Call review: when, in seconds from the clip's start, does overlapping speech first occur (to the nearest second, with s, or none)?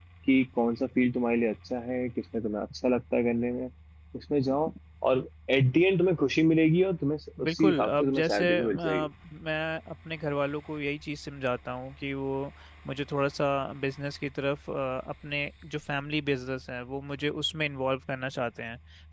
7 s